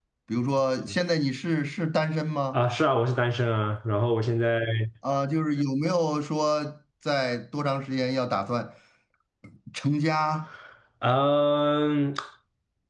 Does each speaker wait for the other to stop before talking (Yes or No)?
Yes